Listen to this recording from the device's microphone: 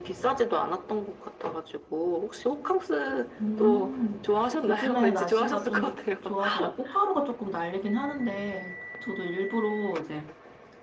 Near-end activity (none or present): present